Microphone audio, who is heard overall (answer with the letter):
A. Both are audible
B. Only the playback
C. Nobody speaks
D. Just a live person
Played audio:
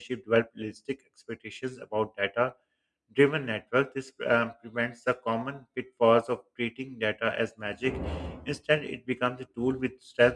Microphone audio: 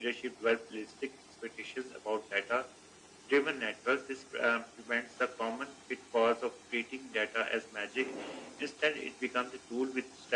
B